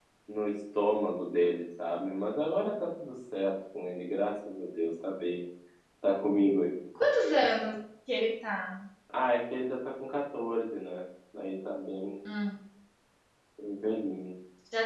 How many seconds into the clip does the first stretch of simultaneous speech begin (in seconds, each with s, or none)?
none